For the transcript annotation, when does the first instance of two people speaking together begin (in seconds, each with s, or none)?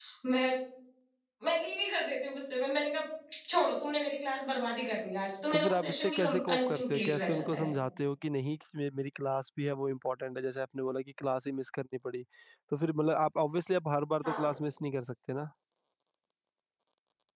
5.5 s